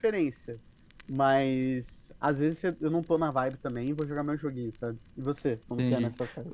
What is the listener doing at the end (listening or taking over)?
taking over